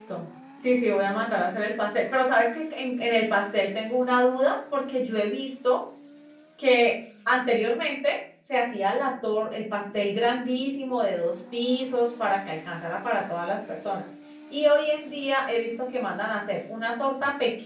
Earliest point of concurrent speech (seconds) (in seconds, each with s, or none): none